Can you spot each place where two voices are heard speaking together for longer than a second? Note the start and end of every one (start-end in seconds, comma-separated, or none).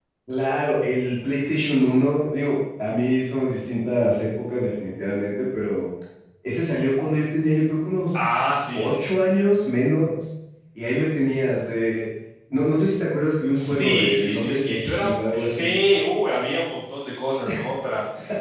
13.5-15.7